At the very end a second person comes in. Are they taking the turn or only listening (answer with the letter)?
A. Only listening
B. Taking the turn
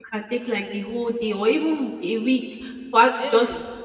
A